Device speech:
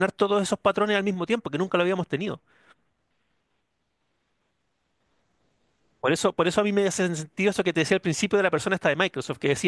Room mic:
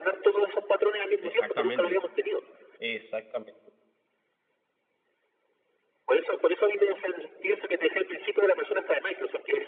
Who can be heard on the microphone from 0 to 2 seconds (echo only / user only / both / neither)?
both